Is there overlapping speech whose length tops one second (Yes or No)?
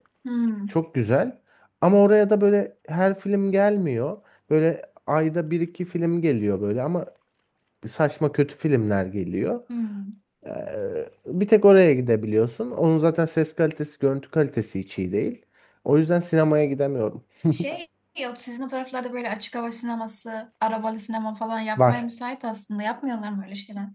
No